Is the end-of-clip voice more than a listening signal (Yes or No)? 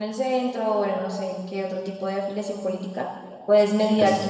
No